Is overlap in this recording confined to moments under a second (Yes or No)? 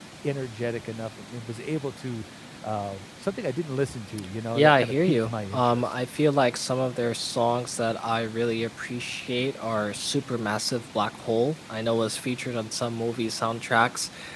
No